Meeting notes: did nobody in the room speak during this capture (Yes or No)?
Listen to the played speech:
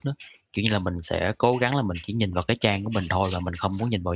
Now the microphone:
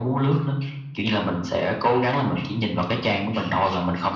Yes